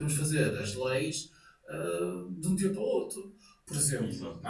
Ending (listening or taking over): listening